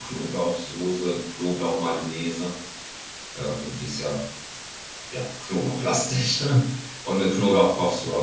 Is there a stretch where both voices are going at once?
No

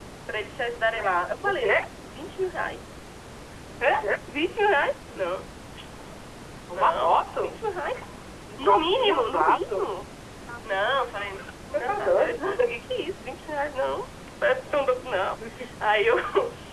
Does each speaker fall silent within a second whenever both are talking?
No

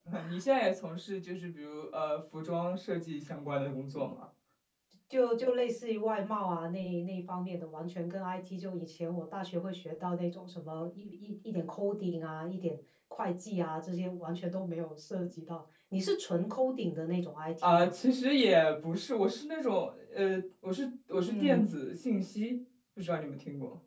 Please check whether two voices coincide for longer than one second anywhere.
No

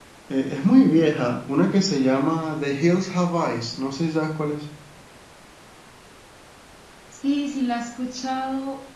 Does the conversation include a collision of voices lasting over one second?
No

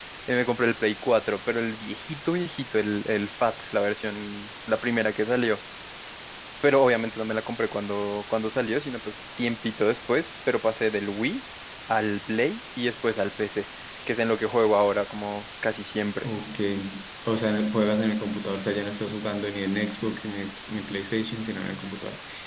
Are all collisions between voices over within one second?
Yes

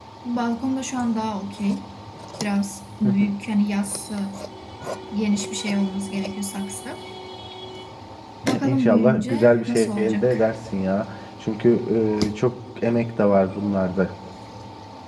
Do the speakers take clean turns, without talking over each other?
No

